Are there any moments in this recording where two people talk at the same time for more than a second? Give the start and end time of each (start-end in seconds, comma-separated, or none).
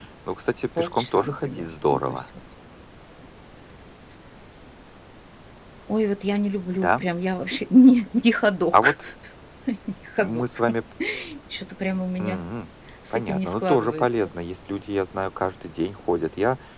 0.8-2.2, 13.1-14.3